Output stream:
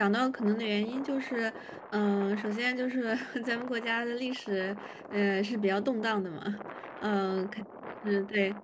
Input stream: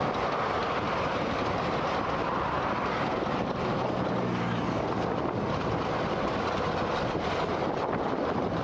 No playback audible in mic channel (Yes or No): Yes